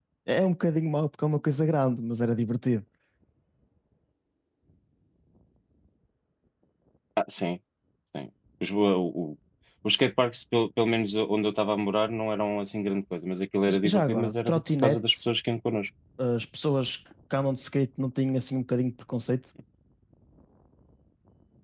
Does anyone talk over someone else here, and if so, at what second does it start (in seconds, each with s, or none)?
13.7 s